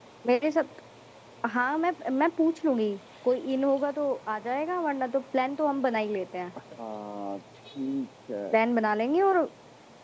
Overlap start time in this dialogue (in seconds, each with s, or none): none